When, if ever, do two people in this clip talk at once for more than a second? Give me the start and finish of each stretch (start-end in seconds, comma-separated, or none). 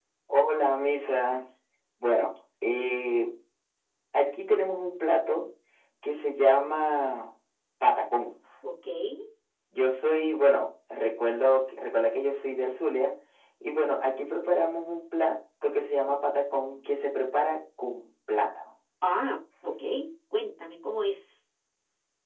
none